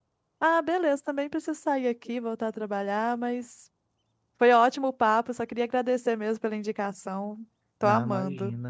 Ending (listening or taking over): taking over